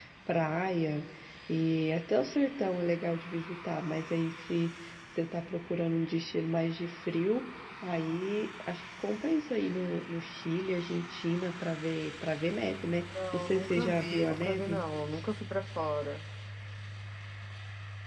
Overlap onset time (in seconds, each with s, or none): 13.1 s